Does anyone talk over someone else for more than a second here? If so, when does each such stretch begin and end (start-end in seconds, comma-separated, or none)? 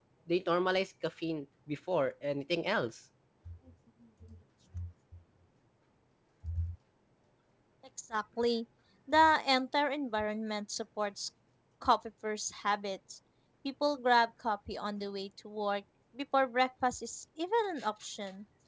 none